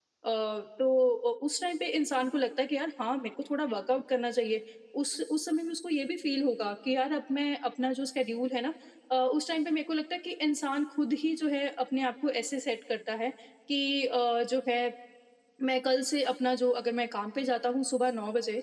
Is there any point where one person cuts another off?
No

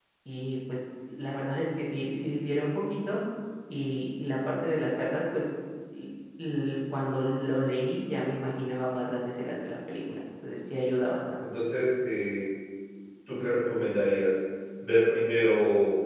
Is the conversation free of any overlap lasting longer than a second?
Yes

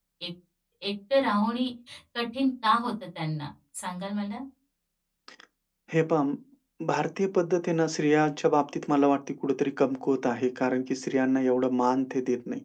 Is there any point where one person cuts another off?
No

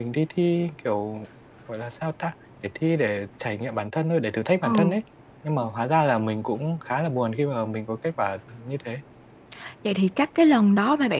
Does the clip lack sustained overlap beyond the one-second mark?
Yes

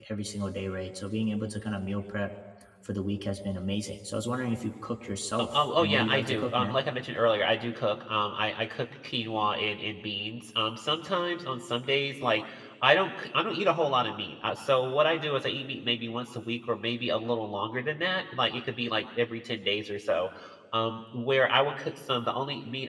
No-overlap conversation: No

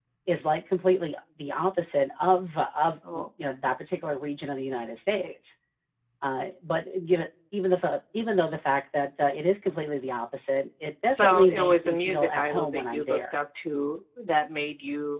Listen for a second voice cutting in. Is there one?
Yes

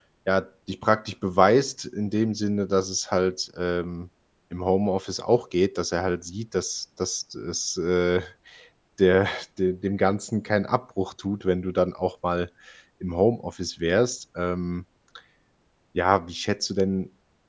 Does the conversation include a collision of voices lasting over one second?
No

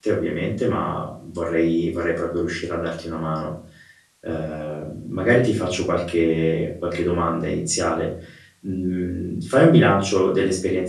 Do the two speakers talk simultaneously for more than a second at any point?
No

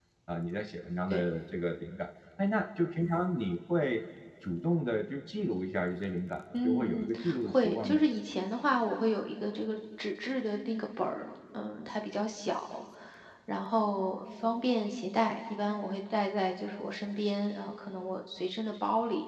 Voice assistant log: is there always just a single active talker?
No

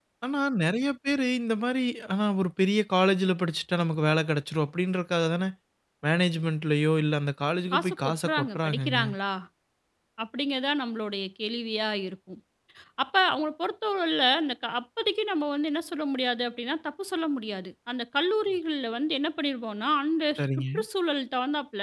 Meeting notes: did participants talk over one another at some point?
Yes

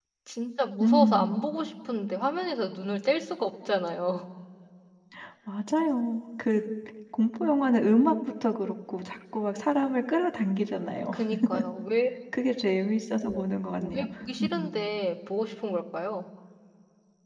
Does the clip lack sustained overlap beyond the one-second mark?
Yes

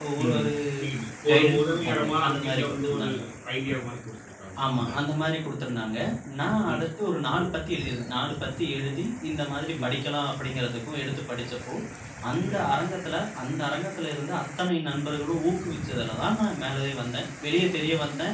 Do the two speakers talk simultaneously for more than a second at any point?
Yes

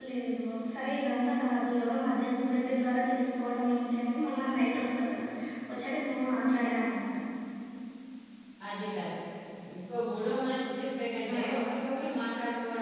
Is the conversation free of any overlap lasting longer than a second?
Yes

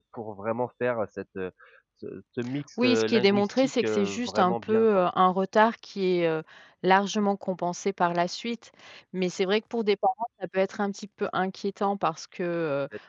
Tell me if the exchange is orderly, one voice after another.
No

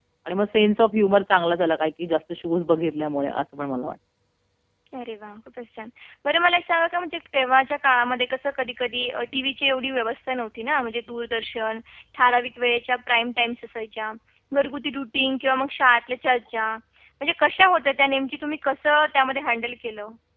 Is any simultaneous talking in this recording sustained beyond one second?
No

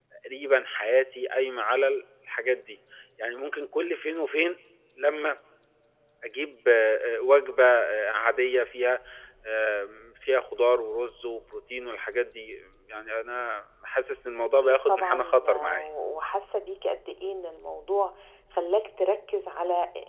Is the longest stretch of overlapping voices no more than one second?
No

